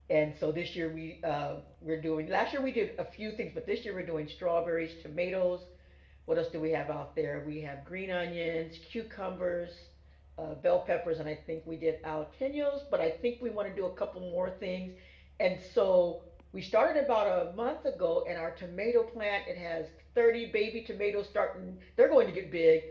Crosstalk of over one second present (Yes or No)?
No